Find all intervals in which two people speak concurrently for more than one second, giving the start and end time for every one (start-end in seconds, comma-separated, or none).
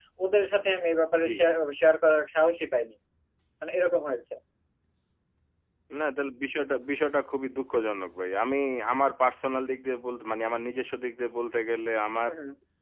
none